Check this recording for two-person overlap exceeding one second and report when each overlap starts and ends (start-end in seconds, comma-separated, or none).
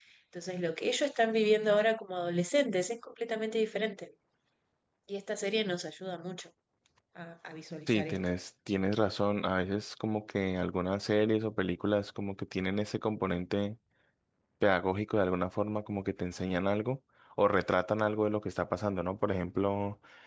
none